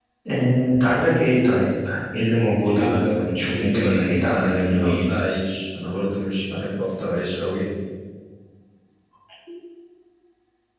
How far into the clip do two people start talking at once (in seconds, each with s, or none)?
2.6 s